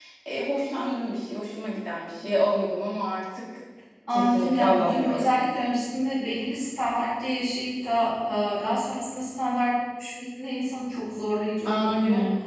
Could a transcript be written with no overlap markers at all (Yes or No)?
No